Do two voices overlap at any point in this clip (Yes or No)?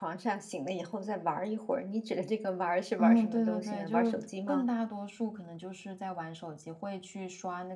Yes